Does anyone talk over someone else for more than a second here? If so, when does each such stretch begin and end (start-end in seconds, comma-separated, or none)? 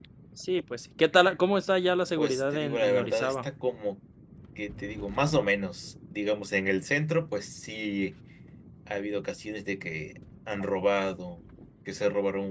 2.2-3.5